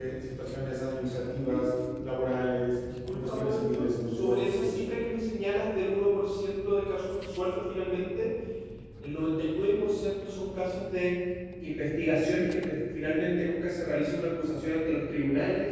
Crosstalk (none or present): present